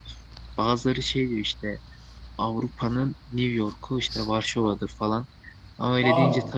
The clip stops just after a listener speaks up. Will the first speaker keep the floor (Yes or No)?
Yes